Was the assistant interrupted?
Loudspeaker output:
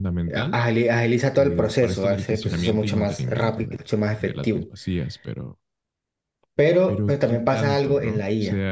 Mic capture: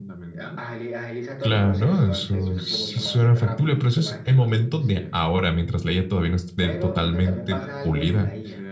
Yes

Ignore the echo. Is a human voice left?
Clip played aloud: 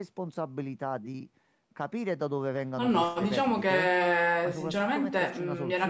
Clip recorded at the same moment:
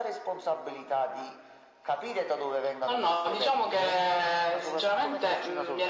No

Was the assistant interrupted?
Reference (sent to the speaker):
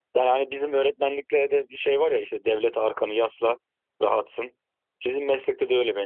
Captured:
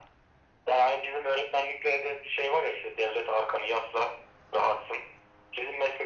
No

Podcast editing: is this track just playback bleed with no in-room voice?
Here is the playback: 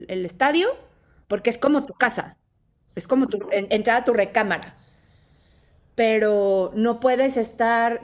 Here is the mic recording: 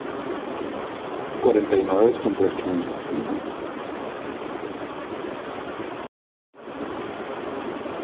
No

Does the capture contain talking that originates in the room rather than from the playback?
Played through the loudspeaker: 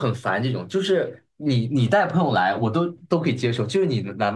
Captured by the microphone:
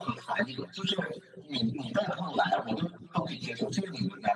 No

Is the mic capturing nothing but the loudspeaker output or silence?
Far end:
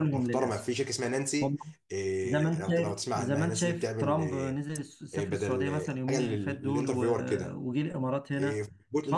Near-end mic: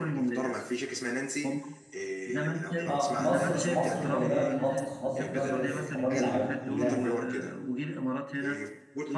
No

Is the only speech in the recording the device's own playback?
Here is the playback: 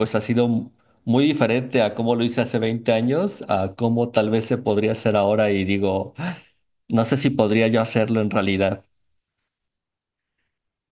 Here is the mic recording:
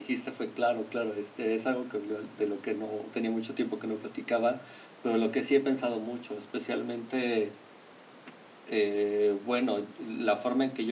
No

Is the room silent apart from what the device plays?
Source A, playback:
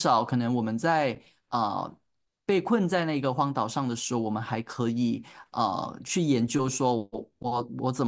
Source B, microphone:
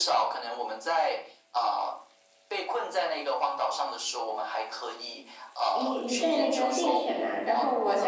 No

